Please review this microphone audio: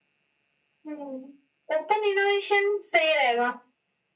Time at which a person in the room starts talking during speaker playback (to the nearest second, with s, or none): none